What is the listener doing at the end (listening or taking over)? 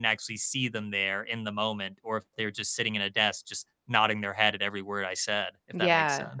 taking over